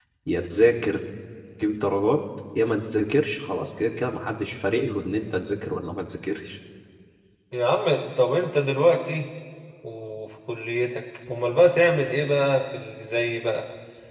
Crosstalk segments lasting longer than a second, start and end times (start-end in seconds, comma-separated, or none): none